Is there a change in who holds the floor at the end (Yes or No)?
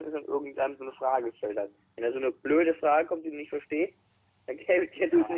Yes